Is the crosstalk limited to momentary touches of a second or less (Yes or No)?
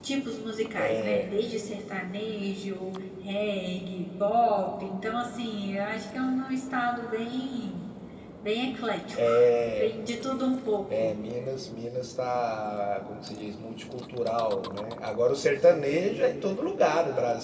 Yes